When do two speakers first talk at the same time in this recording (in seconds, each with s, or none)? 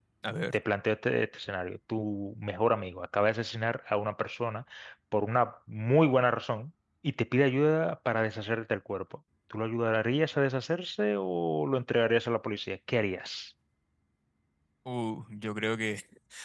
none